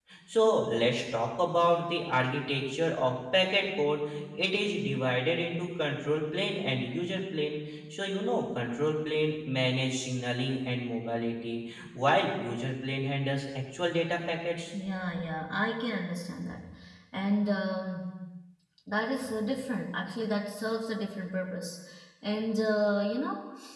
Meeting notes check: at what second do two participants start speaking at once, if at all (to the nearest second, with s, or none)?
none